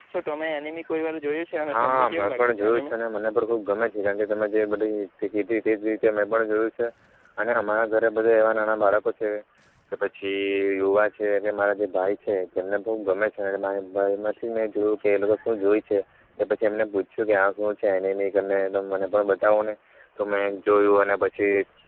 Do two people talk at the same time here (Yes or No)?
Yes